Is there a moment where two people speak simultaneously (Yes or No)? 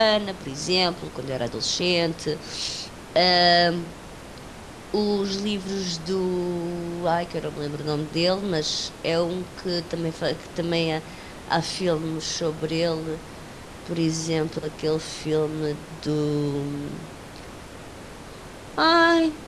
No